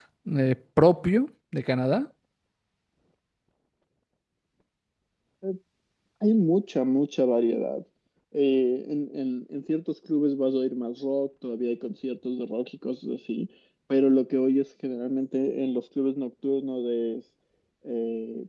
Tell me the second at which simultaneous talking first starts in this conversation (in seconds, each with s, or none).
none